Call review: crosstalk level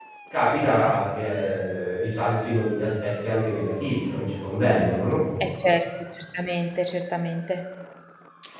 none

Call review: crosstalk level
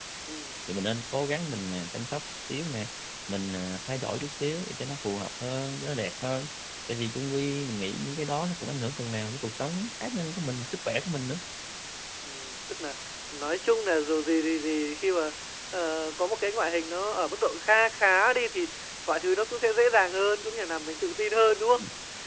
none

